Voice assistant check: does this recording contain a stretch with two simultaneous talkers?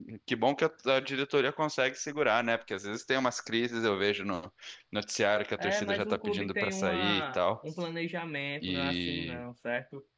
Yes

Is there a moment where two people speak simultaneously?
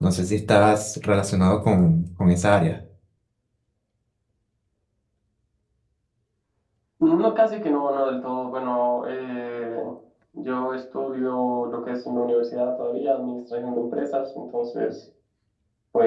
No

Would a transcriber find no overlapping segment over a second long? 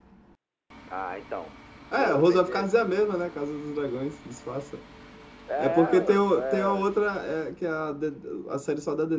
No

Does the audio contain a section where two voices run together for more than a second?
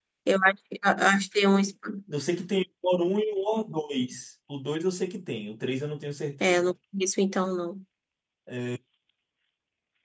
No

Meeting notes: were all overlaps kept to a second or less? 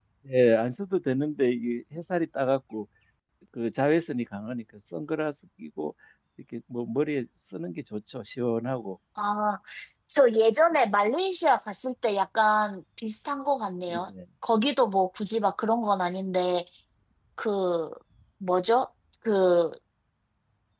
Yes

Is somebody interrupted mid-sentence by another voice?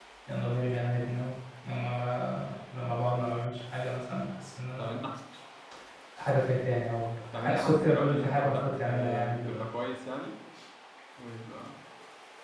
Yes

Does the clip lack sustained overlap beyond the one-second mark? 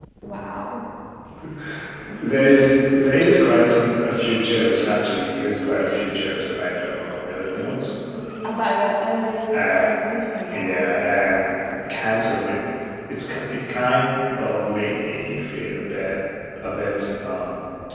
Yes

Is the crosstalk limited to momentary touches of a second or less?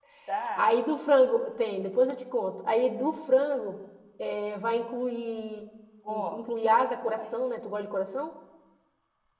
No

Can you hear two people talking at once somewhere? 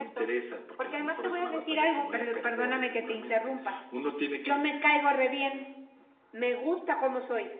Yes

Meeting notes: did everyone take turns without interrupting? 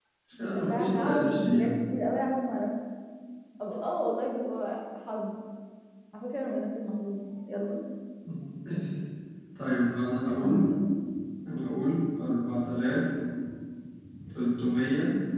No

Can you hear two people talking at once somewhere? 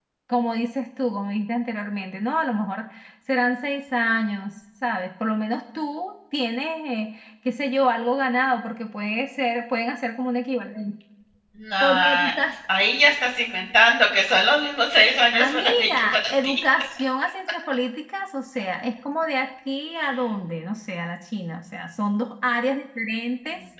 Yes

